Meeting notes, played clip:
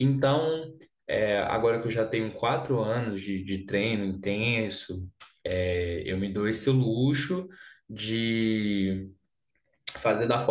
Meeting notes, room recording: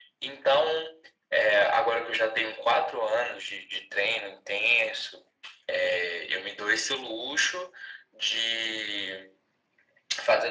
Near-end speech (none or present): none